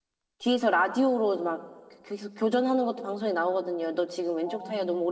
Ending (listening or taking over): listening